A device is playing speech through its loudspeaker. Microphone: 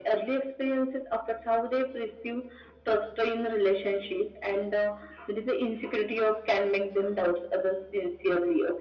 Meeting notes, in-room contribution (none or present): none